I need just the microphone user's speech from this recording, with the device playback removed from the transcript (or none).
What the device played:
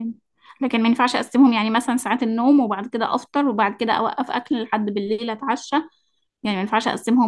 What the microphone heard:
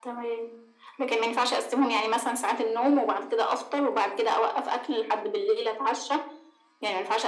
none